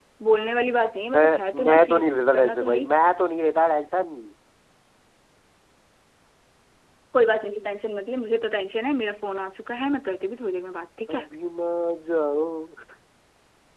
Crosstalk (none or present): present